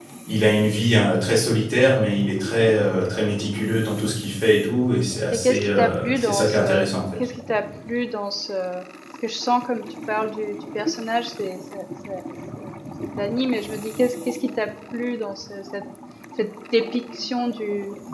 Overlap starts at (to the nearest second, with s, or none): 5 s